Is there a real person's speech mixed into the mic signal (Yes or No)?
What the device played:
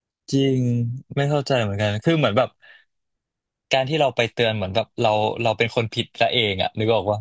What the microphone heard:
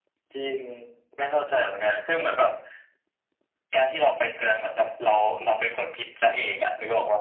No